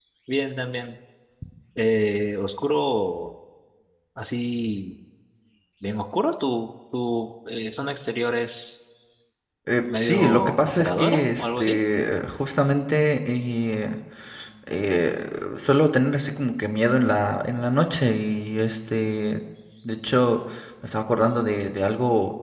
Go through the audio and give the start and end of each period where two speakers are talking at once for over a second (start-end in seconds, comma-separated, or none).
10.0-11.8